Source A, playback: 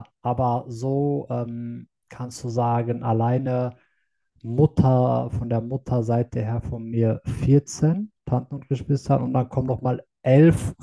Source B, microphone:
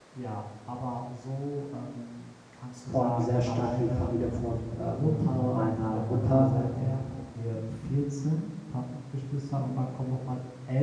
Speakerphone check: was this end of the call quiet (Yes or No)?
No